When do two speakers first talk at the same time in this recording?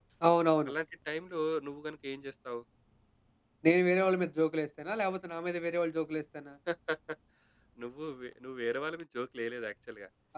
none

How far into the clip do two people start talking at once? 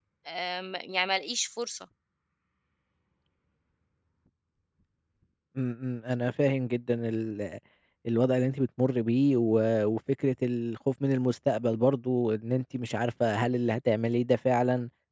none

